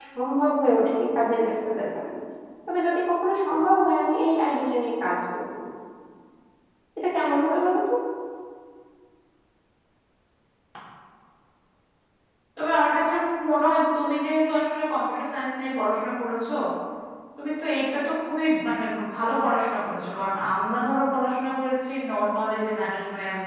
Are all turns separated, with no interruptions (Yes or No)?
Yes